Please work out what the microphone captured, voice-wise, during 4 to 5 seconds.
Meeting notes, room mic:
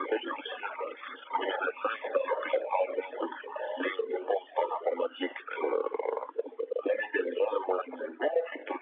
echo only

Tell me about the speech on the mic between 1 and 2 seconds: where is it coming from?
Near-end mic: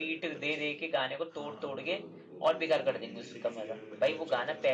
both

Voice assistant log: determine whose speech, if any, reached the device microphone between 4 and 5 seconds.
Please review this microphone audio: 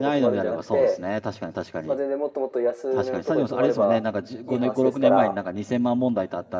both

